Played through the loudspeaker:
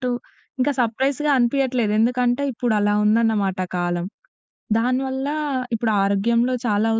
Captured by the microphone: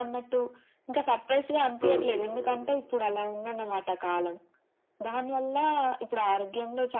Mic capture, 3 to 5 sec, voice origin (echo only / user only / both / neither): echo only